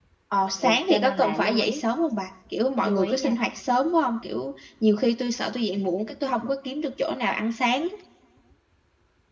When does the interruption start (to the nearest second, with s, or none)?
1 s